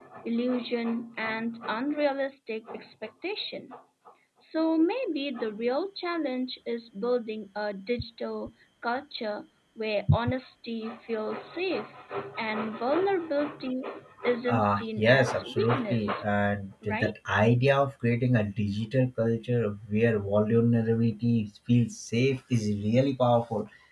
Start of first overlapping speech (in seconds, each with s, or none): 14.5 s